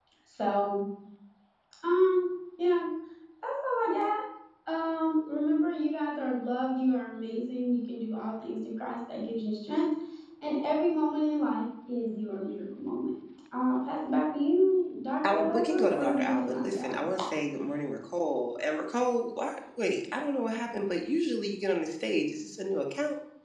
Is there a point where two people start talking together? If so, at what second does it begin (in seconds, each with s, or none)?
15.2 s